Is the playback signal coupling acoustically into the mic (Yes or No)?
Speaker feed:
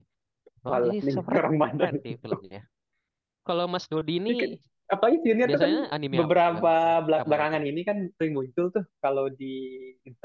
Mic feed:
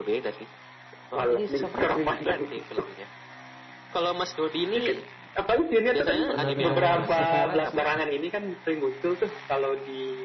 Yes